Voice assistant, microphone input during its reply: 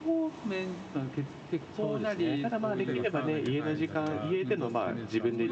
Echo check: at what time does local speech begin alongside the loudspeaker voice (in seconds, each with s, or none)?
2.7 s